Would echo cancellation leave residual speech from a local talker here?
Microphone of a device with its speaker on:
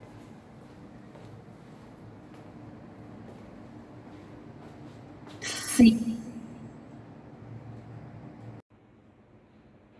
Yes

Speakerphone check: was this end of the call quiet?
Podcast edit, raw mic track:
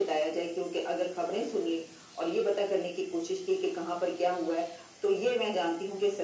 Yes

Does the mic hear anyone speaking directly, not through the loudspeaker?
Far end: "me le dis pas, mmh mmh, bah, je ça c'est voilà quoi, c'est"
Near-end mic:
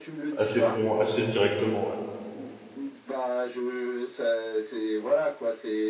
Yes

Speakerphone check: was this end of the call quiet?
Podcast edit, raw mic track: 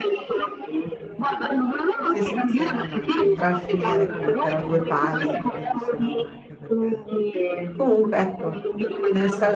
No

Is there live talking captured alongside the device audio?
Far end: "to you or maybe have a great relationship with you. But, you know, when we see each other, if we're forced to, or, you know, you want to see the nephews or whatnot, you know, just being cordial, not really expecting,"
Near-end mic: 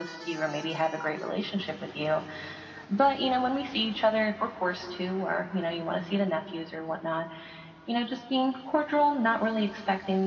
No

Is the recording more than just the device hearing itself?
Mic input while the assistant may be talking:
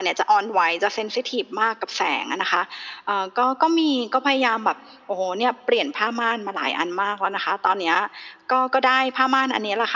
No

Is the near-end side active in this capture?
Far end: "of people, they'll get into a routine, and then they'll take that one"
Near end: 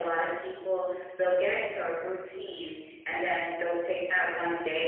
No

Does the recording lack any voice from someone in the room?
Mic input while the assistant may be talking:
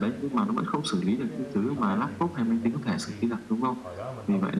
No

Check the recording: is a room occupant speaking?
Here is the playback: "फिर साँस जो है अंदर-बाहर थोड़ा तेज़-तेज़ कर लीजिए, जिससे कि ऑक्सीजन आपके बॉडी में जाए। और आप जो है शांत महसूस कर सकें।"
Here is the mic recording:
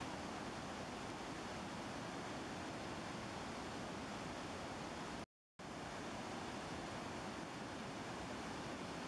No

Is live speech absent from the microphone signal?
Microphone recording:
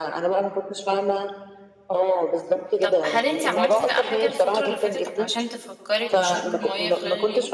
No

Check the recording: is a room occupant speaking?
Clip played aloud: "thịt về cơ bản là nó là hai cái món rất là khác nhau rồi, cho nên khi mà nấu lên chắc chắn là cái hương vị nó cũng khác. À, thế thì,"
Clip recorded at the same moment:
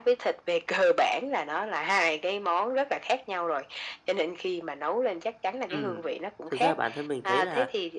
Yes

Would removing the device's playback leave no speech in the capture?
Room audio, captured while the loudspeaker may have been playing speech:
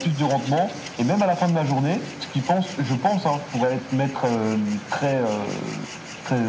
Yes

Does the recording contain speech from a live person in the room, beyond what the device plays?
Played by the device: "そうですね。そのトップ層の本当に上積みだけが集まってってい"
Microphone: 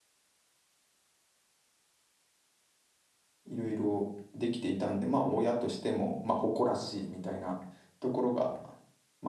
Yes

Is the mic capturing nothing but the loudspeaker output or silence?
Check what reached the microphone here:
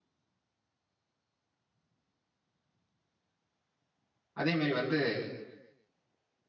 No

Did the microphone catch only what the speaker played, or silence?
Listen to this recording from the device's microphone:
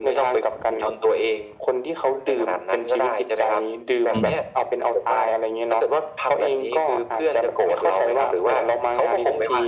No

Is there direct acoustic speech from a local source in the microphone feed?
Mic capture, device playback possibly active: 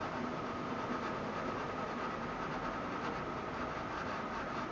No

